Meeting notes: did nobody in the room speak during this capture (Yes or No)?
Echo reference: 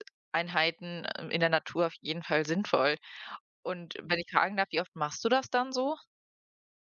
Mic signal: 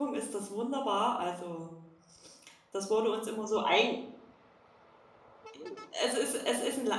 No